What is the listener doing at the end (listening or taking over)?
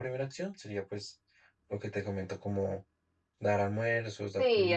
taking over